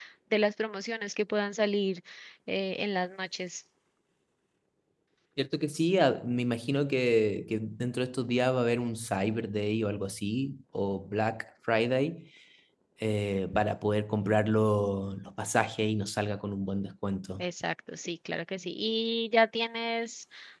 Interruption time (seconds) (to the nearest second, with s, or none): none